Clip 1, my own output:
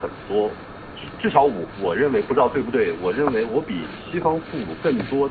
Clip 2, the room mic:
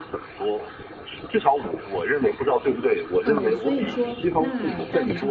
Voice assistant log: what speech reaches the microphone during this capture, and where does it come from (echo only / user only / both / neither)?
both